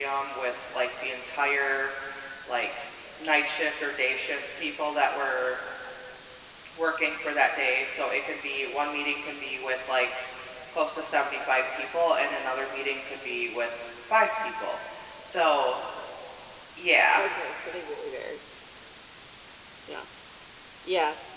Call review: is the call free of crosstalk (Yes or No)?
Yes